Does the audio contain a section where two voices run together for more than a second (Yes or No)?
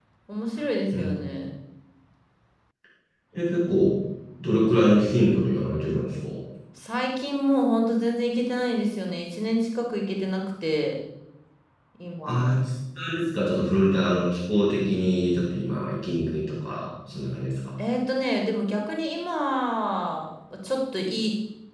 No